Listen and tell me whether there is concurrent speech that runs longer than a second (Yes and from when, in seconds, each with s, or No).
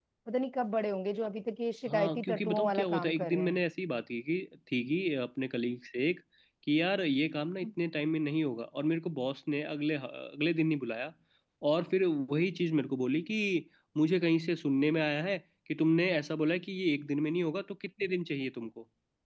Yes, from 1.9 s